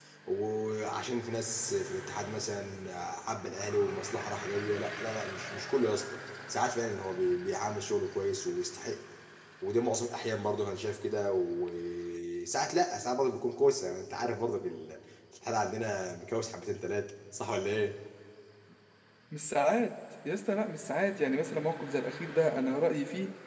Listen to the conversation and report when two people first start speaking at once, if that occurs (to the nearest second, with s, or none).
none